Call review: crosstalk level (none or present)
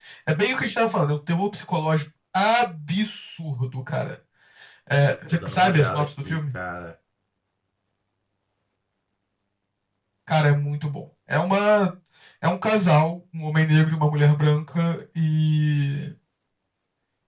present